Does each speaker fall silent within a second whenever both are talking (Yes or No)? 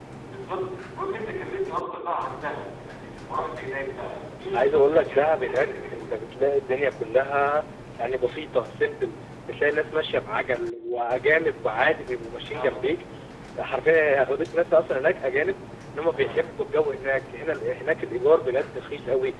No